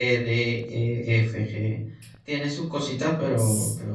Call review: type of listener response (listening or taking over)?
taking over